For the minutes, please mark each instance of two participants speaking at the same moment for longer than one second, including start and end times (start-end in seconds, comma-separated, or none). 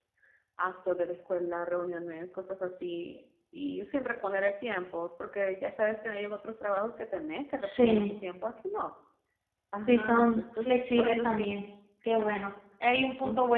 9.9-11.5